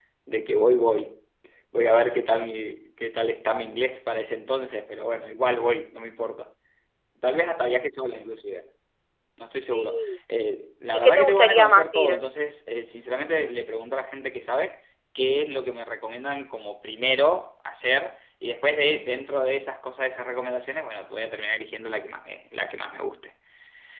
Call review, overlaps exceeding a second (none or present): present